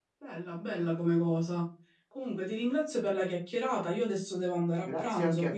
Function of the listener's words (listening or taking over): taking over